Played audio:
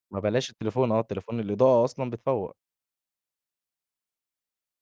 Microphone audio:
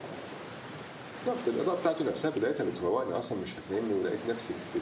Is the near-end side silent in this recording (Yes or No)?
No